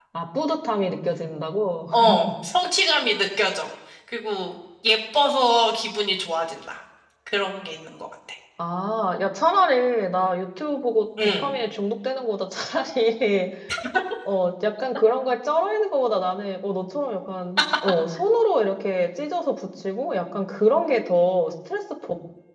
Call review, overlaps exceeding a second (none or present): none